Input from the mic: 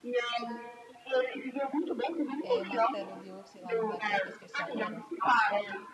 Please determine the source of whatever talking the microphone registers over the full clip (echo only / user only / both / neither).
both